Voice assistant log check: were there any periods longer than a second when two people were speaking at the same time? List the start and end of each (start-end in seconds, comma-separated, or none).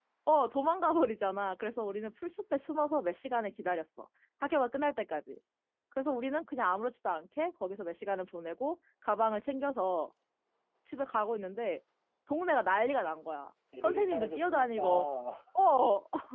13.8-15.1